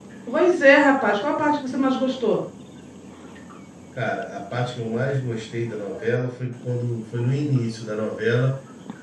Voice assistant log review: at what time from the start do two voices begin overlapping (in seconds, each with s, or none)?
none